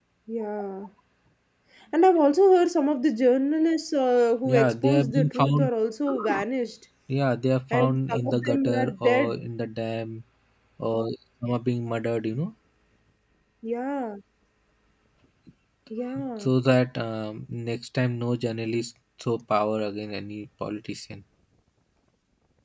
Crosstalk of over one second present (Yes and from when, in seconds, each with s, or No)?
Yes, from 4.4 s